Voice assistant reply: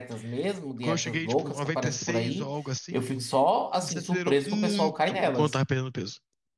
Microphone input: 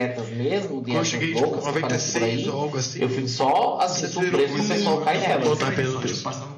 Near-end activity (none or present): present